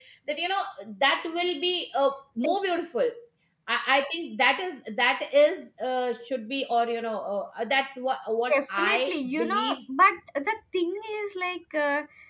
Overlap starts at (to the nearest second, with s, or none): 8 s